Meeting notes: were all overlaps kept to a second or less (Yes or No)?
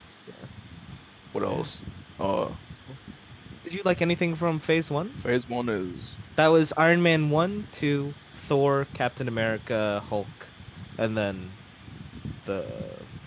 Yes